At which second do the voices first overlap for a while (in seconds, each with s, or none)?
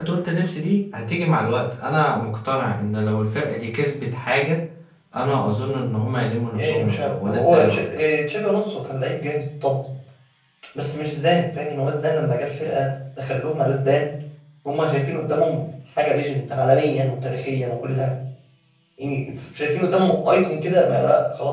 6.5 s